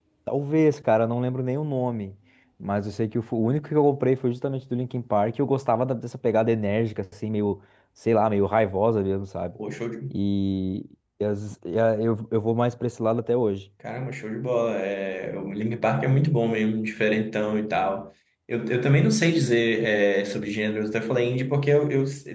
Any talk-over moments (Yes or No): No